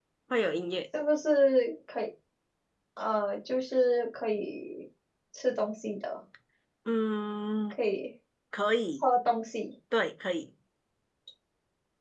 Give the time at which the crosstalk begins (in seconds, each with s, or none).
none